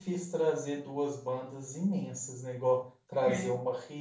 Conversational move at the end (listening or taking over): listening